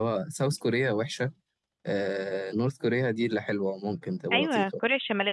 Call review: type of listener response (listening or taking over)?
taking over